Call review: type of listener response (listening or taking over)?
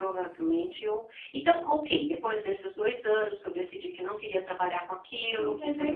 taking over